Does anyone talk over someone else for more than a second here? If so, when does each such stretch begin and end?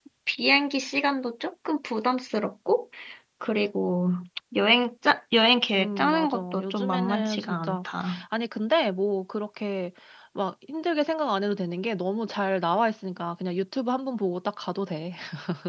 5.8-7.8

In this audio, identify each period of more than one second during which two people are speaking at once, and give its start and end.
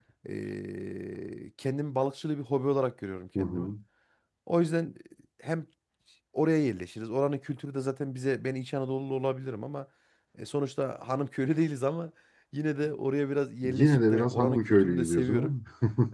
13.6-15.5

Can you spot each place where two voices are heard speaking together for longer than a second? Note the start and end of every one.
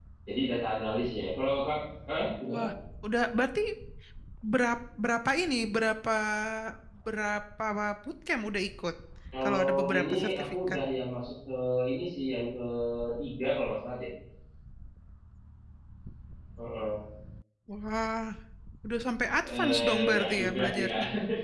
9.4-10.8, 19.4-20.9

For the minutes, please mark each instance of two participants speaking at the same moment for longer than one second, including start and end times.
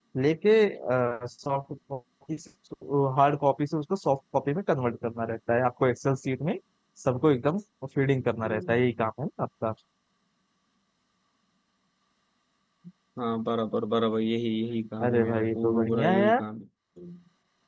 15.0-16.4

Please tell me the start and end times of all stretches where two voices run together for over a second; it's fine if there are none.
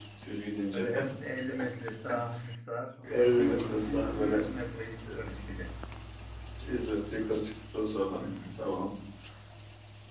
3.2-4.4

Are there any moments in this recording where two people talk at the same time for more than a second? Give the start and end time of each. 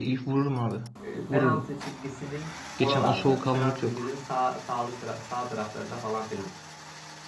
2.8-4.1

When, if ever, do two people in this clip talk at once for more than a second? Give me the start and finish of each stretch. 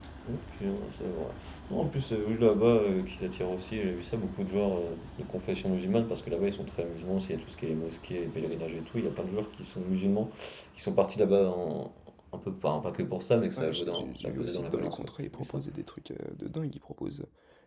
13.6-15.6

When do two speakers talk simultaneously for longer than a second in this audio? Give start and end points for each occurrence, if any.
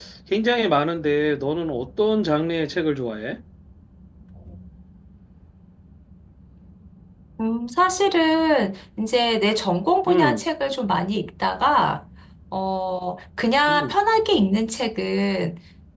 none

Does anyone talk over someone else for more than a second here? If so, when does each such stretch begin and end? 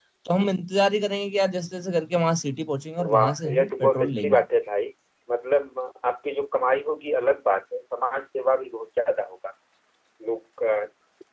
3.1-4.4

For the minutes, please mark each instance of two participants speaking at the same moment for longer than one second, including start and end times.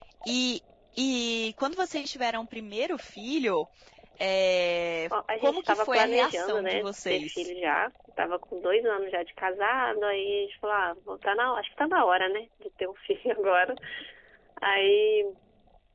5.4-7.5

